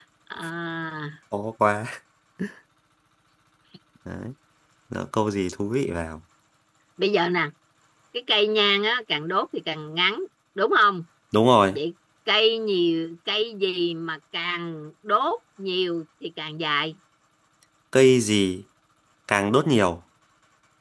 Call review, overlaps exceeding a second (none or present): none